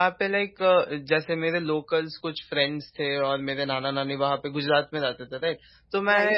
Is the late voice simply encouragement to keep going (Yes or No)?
Yes